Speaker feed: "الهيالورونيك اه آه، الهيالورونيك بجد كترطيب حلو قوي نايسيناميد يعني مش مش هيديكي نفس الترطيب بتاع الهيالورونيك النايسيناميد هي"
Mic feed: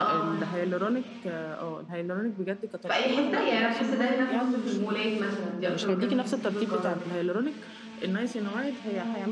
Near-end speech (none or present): present